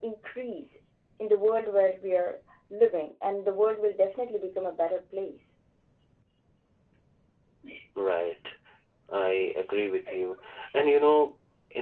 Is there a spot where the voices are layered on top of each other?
No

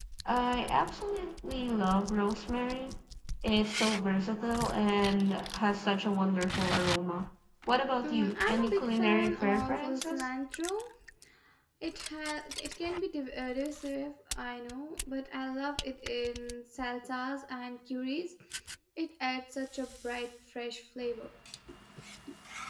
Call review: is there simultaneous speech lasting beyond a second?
Yes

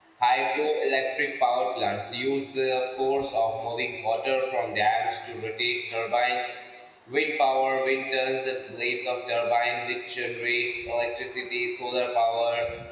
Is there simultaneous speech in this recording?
No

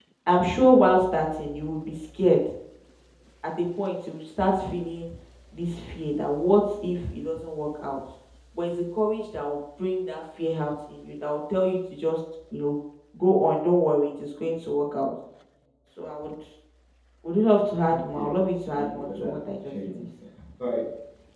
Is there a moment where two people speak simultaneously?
Yes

